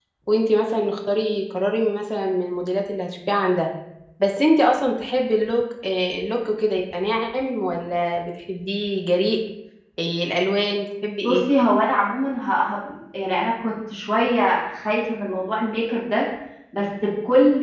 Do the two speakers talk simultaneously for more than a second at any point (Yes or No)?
No